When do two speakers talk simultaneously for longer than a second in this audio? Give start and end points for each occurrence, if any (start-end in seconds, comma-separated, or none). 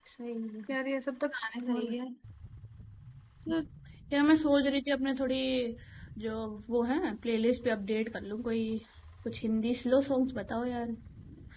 none